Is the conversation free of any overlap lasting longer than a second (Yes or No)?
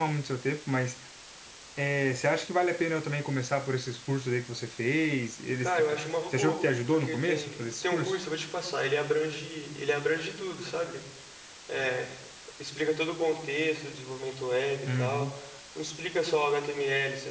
No